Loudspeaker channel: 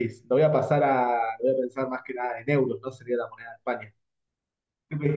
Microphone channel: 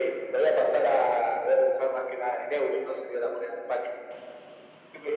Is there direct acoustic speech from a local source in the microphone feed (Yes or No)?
No